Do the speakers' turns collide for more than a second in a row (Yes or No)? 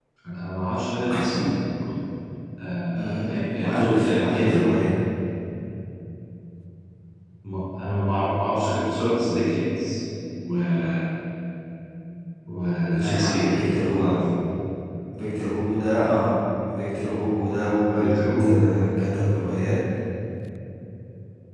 Yes